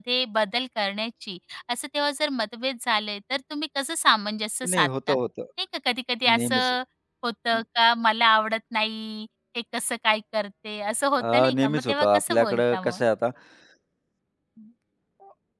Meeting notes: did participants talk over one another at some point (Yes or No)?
Yes